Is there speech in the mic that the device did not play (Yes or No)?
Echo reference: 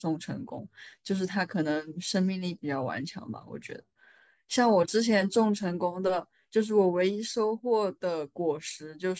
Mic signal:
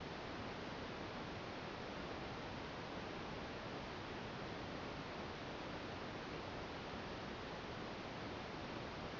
No